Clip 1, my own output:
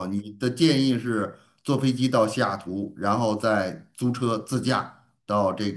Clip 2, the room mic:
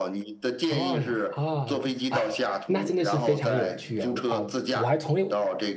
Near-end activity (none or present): present